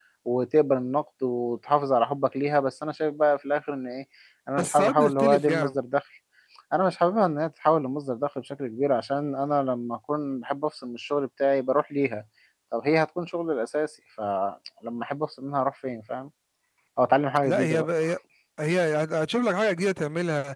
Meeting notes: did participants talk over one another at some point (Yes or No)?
Yes